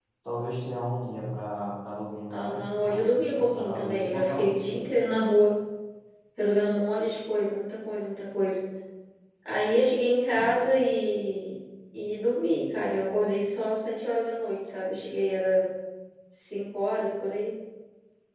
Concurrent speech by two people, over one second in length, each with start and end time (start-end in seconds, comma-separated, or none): 2.3-4.7